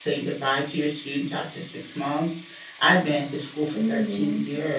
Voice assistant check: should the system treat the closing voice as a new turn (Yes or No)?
No